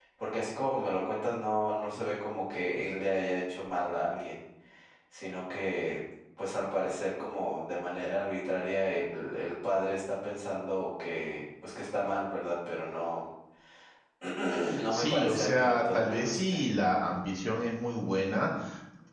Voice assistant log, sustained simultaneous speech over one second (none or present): present